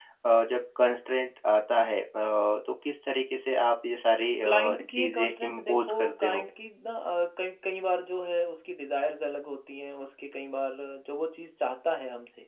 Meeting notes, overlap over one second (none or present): present